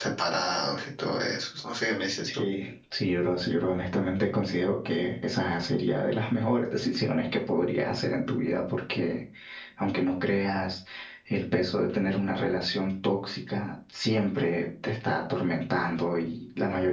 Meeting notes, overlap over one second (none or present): none